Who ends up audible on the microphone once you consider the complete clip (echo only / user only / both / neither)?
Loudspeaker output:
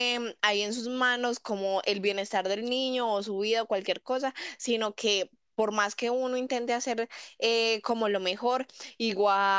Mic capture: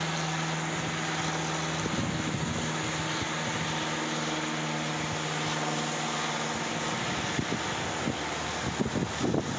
neither